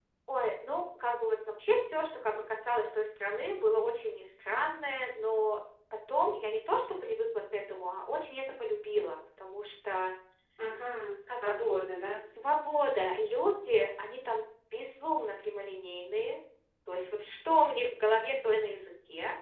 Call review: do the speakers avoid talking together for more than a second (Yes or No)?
Yes